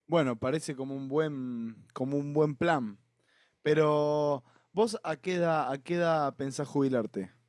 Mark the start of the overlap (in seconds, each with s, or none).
none